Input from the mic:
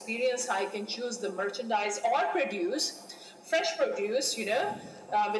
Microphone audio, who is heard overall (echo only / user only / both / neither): echo only